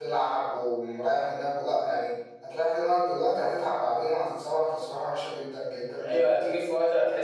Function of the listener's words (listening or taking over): taking over